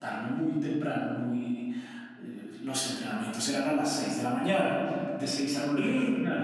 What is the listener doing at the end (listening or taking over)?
taking over